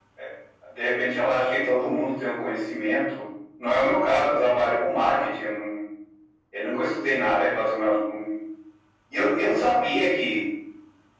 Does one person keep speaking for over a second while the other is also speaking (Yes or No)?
No